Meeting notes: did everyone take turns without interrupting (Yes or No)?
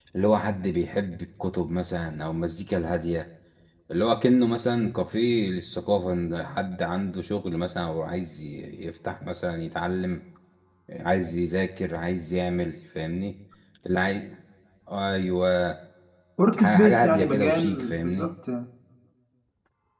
No